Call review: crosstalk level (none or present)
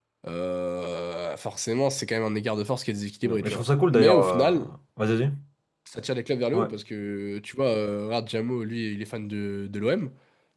present